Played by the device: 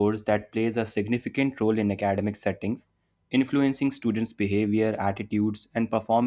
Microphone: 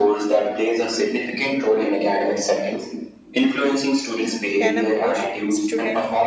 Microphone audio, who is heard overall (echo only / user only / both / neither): both